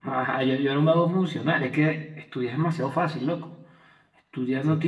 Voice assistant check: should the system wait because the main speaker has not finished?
Yes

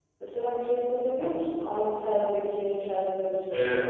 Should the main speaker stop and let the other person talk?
Yes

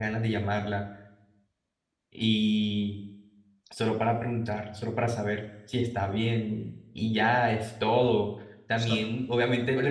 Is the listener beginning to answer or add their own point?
No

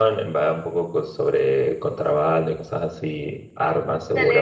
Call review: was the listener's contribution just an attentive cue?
No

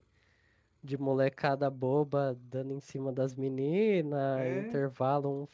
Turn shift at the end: No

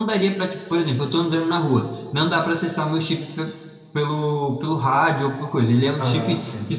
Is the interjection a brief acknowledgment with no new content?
Yes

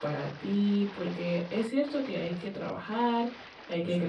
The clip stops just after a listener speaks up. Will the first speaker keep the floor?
Yes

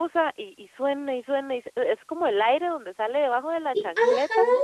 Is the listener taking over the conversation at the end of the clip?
Yes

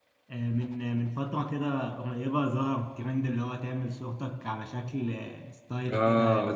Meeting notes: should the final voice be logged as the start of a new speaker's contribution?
Yes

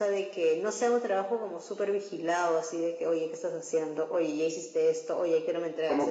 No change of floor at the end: No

